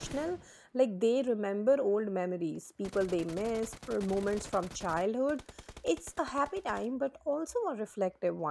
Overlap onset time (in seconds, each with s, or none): none